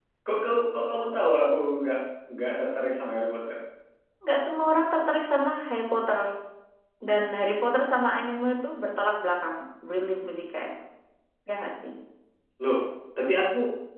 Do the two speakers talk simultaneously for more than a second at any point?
No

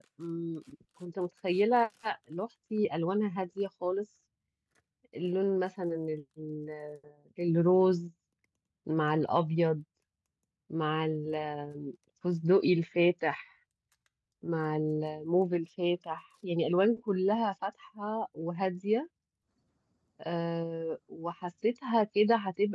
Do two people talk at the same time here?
No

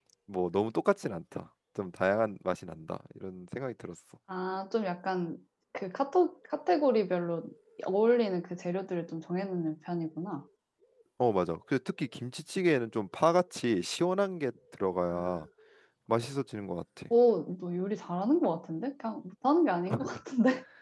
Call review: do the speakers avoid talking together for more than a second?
Yes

